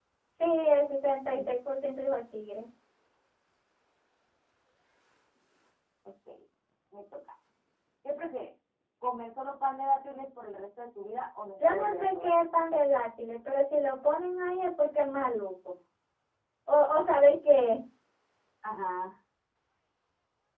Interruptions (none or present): present